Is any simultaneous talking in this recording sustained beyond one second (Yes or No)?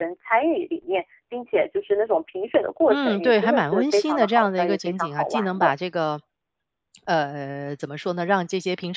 Yes